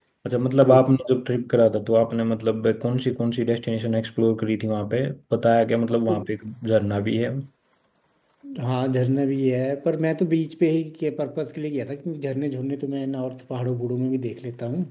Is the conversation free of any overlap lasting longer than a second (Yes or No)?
Yes